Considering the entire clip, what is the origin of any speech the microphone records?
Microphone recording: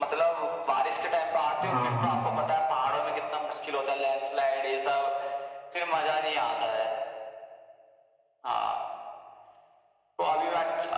both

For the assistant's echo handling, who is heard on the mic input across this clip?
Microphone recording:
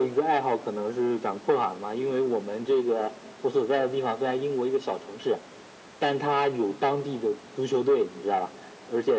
echo only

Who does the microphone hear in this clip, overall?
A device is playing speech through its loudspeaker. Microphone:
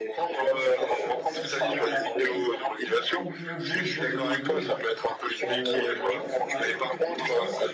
both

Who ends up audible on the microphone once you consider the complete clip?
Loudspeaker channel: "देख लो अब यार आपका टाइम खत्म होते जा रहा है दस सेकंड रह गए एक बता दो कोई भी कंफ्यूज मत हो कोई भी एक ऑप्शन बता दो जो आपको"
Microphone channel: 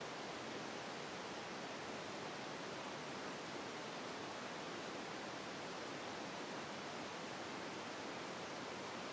neither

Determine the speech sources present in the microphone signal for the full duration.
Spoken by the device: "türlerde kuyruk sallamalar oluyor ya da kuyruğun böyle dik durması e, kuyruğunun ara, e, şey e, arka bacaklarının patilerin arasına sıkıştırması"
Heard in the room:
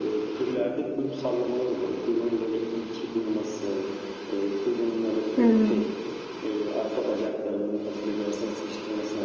both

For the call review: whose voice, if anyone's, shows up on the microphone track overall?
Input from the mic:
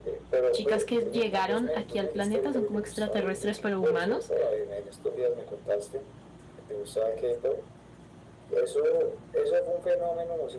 both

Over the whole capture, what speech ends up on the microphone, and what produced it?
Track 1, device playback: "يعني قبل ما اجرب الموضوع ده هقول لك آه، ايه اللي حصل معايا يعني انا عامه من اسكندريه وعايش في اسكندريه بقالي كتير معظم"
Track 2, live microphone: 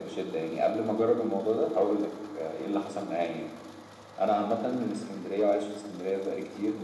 echo only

